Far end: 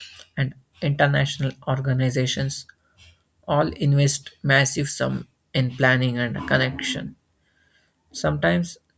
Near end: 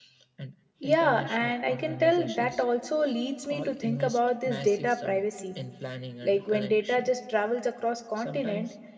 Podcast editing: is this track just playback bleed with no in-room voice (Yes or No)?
No